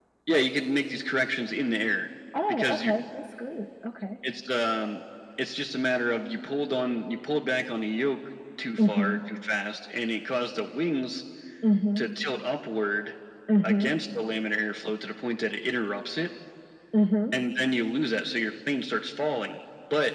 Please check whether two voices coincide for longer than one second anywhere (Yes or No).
No